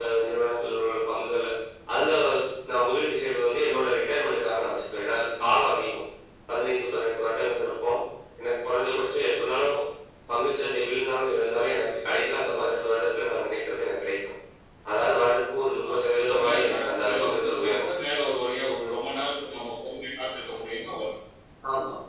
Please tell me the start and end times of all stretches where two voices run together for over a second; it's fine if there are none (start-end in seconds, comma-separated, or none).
15.9-17.8